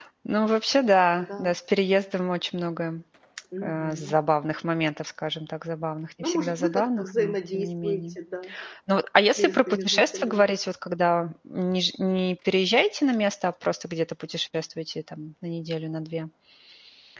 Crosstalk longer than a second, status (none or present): present